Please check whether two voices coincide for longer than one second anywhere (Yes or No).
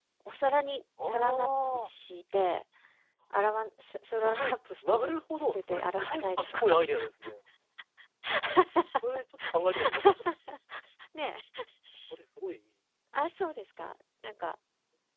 Yes